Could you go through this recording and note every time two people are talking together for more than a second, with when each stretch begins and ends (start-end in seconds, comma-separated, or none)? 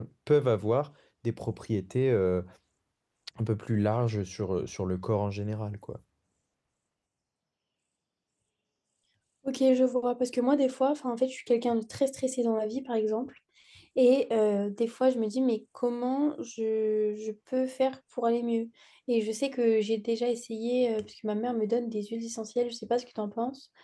none